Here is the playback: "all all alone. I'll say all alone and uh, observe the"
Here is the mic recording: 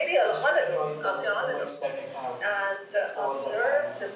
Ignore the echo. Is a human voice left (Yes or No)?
Yes